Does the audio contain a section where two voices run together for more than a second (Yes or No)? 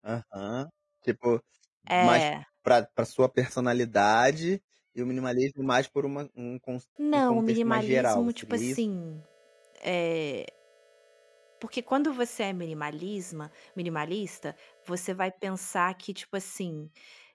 Yes